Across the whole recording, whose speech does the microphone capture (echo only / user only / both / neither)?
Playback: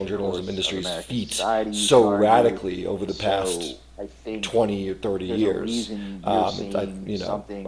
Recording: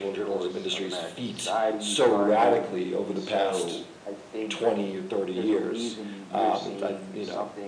echo only